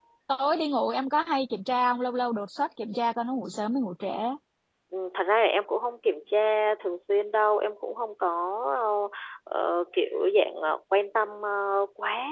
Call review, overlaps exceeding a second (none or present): none